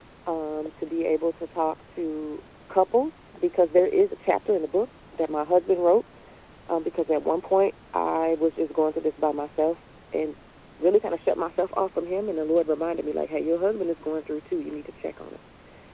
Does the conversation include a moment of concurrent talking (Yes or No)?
No